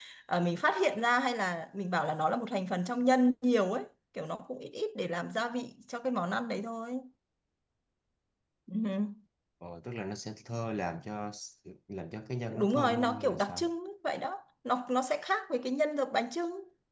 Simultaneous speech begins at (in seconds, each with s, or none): 12.5 s